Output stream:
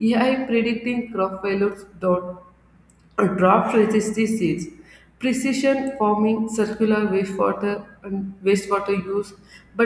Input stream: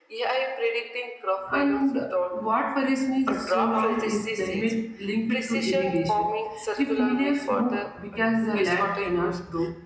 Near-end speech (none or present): present